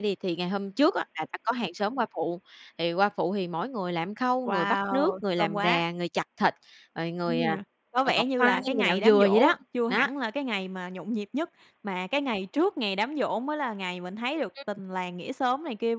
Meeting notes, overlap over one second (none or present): present